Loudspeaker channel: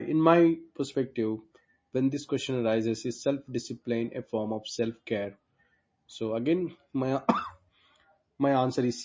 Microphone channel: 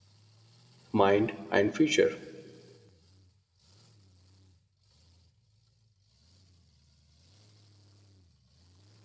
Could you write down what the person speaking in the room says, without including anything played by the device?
mind, and future,

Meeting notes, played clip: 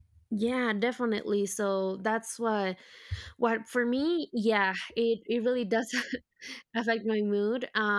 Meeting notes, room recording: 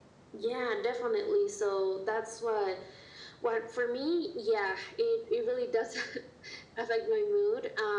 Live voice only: none

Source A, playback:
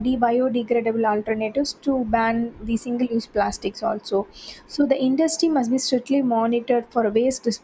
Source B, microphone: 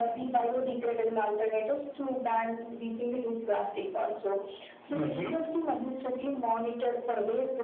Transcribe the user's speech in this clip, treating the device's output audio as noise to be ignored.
hmm

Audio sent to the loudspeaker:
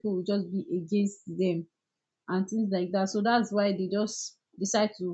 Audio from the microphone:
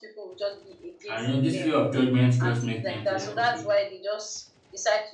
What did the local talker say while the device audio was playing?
And you know, this fear of judgment just make them feel like okay,

